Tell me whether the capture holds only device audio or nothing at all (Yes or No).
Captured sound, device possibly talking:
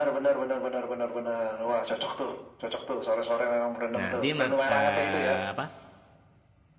No